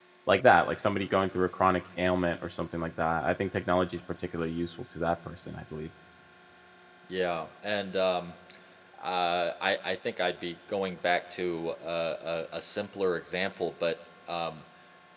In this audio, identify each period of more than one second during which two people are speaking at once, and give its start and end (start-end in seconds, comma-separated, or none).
none